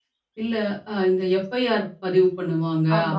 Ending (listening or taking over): listening